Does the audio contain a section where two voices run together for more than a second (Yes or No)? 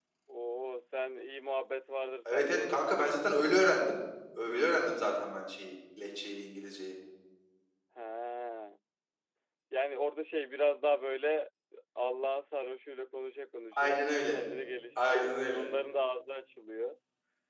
Yes